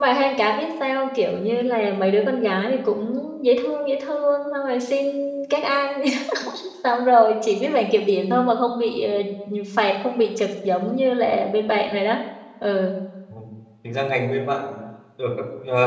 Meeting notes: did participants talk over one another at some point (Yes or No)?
No